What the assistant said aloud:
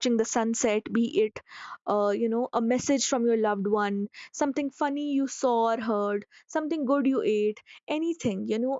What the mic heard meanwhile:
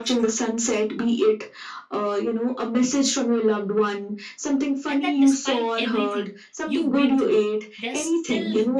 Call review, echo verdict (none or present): present